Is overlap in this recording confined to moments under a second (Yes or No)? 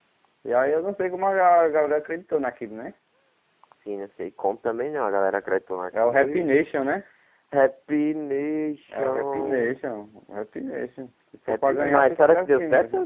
No